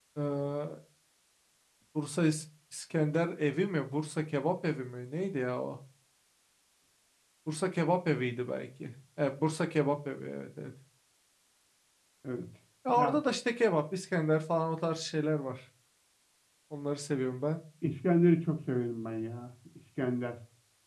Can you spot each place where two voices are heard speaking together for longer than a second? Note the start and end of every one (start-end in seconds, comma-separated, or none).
none